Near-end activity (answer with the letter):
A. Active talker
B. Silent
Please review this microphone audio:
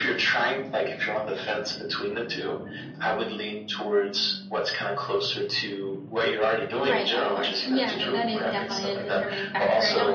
A